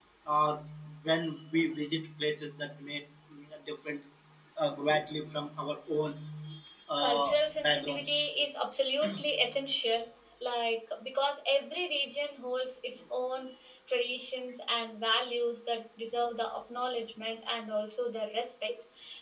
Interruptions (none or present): present